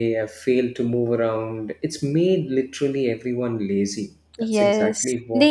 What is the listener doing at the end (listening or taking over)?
taking over